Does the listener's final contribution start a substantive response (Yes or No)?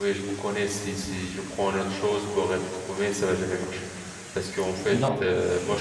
No